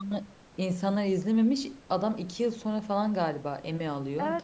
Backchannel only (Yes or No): No